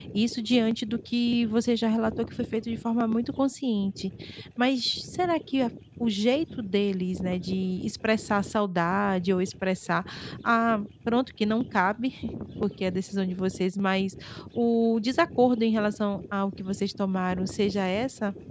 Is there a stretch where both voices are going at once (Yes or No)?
No